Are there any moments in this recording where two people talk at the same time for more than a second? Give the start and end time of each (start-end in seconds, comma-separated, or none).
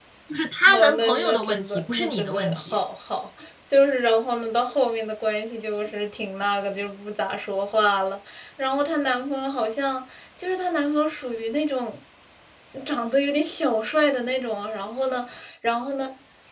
0.7-2.8